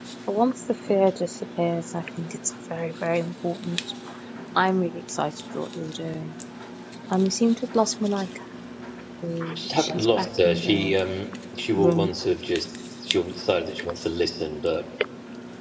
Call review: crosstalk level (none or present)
present